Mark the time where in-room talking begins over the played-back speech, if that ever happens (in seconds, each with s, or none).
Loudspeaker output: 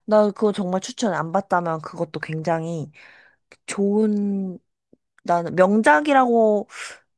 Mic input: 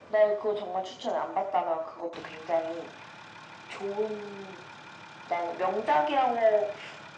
none